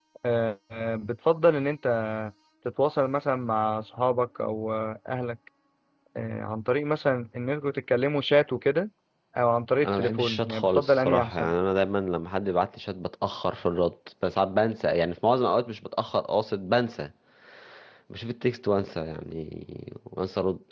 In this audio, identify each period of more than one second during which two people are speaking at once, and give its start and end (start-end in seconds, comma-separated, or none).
9.8-11.5